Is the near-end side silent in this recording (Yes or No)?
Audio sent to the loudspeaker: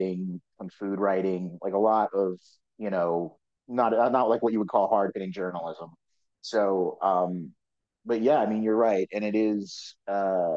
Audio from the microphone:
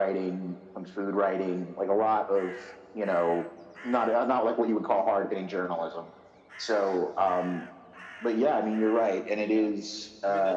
No